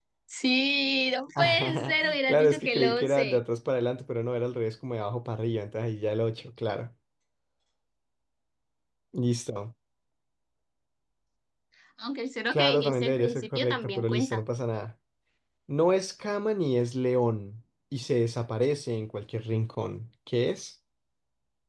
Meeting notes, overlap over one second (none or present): present